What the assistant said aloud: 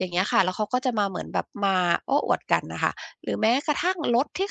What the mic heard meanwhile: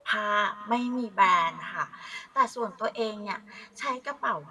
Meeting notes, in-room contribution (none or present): present